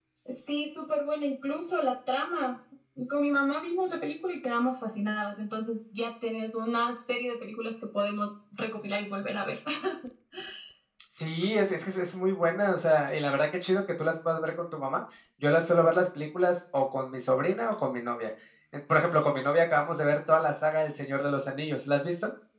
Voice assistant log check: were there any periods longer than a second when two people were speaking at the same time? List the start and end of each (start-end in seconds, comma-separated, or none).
none